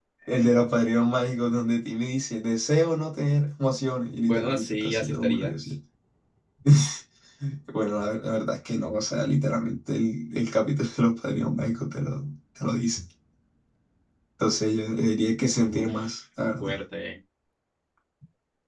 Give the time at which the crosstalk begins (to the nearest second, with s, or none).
4 s